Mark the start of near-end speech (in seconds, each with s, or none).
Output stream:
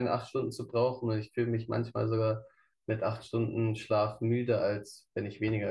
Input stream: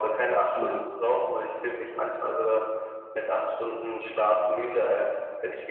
0.5 s